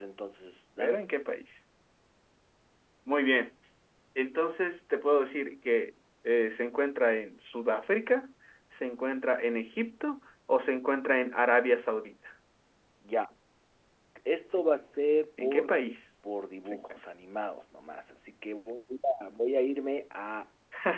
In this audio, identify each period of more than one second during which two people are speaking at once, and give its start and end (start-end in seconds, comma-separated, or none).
none